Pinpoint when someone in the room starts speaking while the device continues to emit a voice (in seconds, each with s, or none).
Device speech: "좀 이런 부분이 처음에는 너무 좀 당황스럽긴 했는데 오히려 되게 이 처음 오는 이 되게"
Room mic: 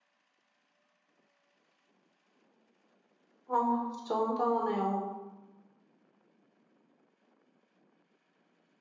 3.5 s